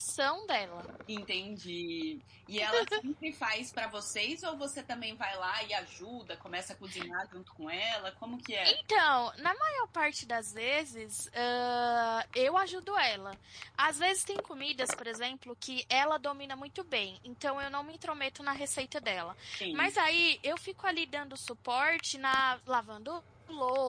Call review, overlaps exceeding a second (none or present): none